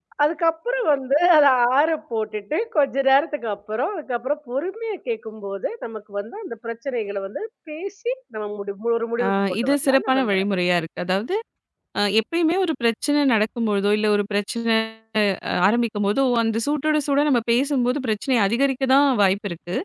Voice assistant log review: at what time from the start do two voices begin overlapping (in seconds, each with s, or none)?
9.2 s